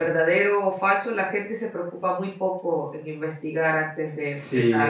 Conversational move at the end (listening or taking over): taking over